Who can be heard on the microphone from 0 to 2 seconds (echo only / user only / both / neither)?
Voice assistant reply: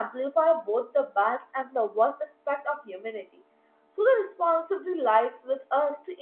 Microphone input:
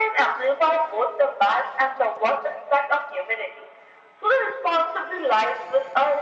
echo only